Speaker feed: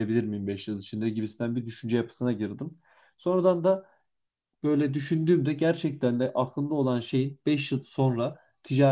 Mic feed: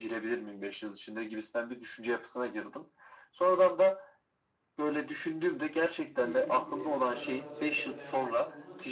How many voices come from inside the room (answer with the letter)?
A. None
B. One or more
B